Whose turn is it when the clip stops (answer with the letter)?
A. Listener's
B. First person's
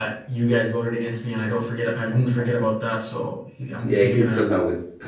A